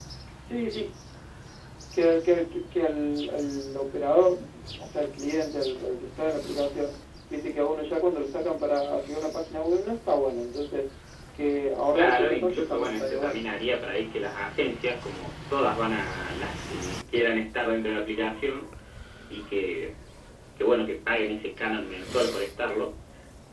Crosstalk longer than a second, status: present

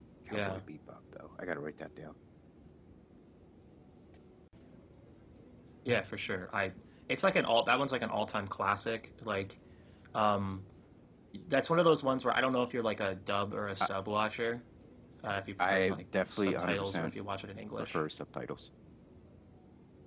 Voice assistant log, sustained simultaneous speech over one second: present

